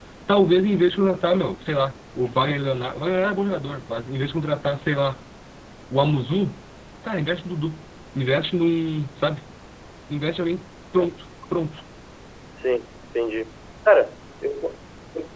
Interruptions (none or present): none